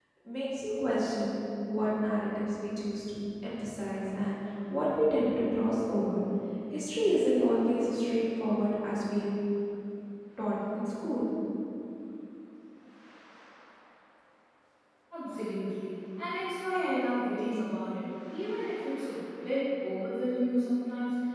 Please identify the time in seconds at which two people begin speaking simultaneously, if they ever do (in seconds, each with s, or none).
none